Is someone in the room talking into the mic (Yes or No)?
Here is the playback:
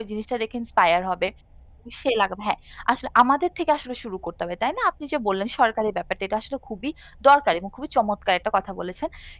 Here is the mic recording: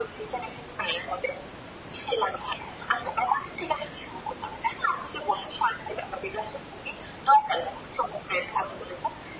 No